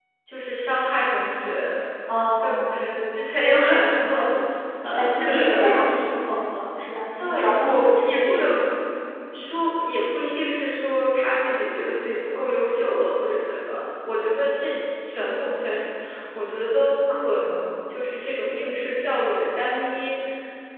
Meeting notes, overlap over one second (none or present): present